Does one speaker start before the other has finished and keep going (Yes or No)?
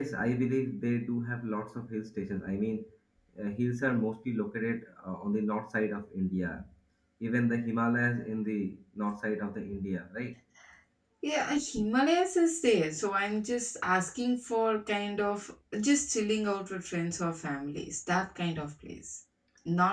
No